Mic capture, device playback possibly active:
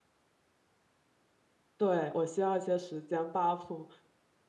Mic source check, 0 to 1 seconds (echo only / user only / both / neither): neither